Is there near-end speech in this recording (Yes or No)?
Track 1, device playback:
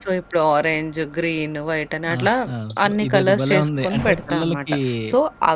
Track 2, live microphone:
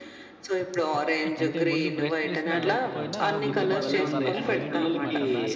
Yes